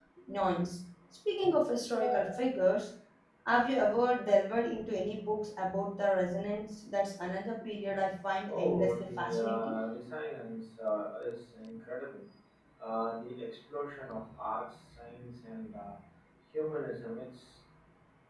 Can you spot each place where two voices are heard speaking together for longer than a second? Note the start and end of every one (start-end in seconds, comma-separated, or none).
8.5-9.8